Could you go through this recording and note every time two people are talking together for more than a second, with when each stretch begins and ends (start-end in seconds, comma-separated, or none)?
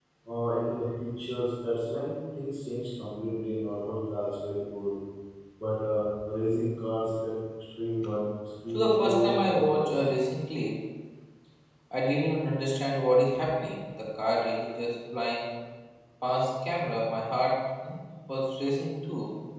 8.7-10.0